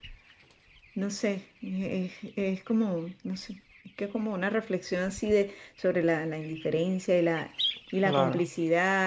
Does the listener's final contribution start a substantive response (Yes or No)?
No